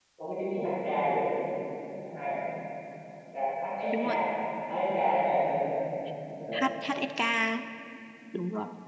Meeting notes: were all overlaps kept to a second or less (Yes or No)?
Yes